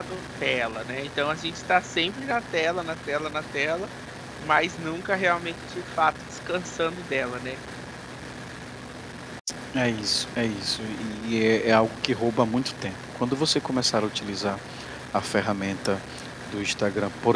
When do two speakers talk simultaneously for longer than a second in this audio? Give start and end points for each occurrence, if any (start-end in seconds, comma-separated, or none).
none